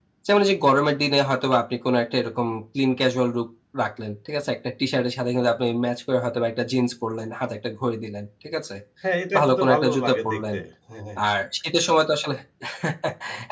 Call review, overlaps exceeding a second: present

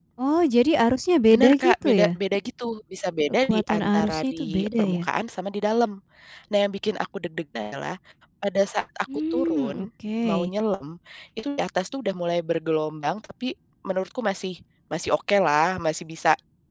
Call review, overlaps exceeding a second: present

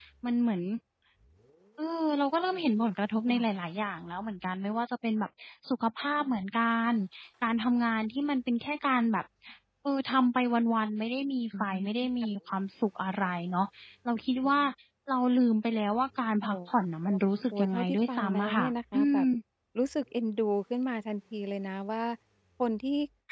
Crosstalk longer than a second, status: present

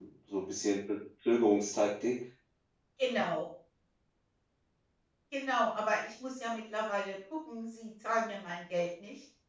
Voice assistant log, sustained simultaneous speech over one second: none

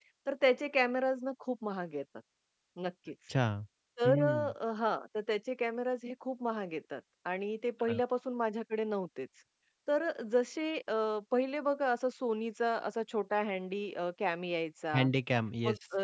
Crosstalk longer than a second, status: none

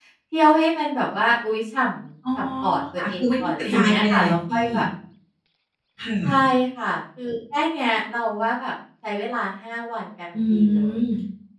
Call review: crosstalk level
present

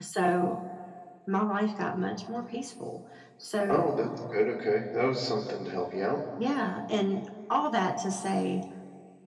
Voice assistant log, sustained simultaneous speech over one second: none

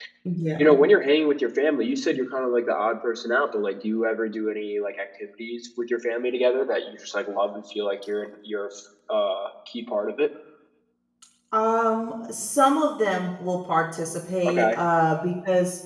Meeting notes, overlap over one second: none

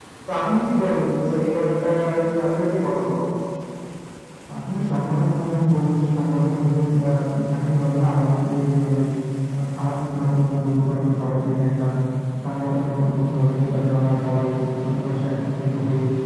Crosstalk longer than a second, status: none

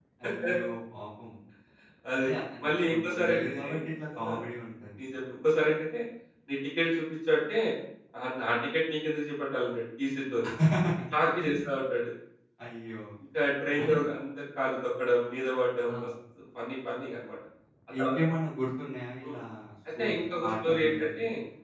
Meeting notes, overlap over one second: present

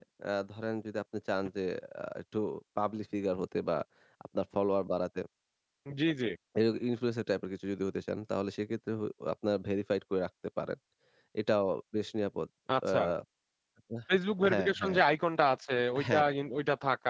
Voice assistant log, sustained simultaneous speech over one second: none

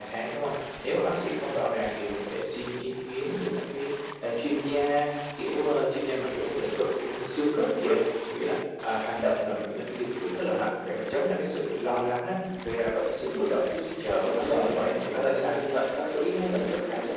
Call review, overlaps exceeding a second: present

